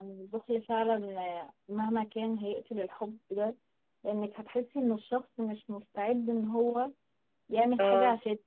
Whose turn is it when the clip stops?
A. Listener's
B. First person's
B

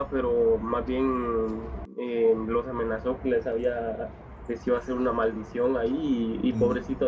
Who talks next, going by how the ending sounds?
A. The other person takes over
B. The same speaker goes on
B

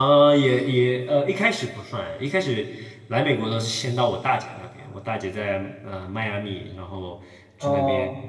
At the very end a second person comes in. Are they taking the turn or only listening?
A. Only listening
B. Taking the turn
A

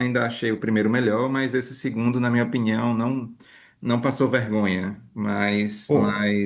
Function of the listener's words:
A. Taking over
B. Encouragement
B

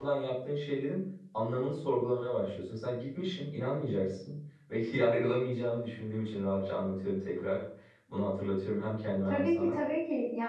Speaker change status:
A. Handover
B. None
A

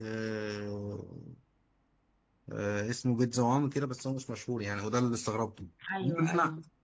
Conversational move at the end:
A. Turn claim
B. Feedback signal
B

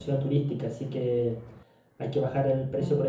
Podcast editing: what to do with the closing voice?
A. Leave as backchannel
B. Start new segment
A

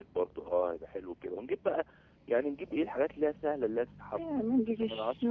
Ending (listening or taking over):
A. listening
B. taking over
B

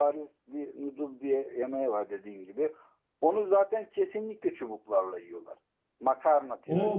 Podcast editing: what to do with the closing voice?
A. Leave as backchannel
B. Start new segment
B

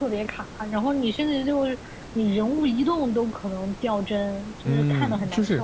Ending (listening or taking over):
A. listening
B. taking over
B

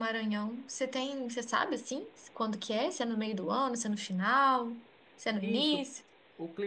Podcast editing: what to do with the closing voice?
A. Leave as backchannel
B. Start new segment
B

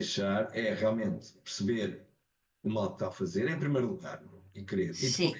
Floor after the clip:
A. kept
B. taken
A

